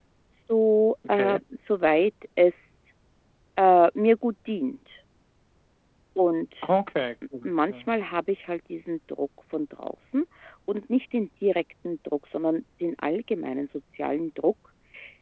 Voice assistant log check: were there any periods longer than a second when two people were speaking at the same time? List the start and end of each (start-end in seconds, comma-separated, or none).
none